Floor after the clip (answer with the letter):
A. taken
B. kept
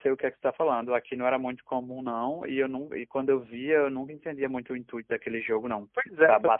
A